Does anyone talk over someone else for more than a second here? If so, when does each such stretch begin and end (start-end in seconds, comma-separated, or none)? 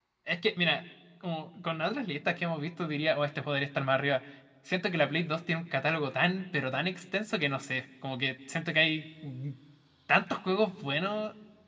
none